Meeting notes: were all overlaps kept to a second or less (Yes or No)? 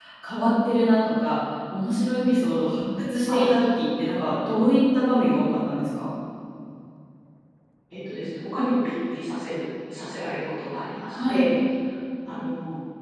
Yes